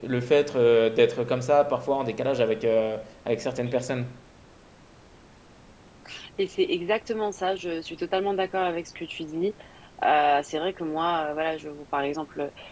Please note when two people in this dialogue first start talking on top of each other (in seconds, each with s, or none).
none